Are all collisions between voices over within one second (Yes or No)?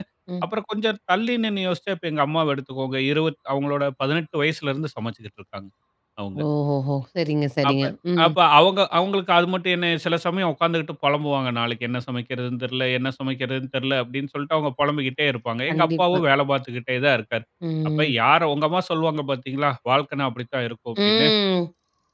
Yes